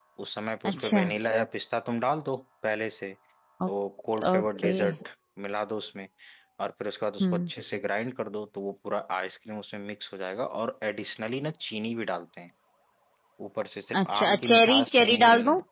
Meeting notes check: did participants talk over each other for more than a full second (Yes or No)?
Yes